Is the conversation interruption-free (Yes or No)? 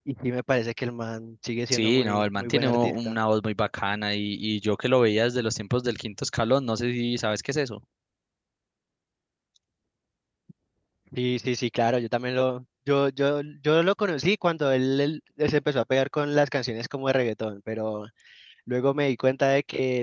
No